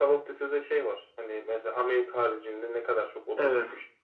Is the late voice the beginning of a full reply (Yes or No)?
Yes